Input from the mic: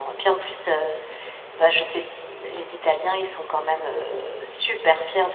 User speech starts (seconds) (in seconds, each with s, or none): none